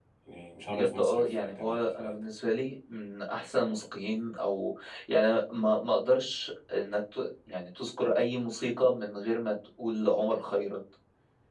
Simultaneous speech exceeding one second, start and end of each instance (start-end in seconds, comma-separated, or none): 0.7-2.1